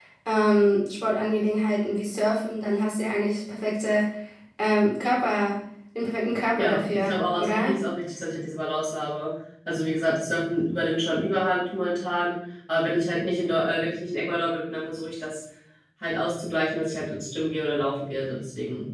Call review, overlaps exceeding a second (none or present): present